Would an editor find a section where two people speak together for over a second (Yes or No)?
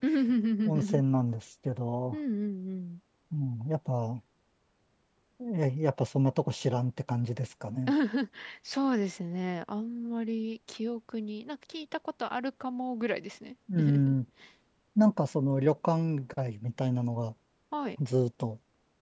No